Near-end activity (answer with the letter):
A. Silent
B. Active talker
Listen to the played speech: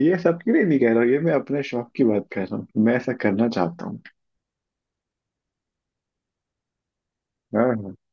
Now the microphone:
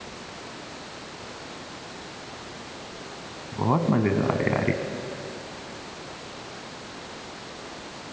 B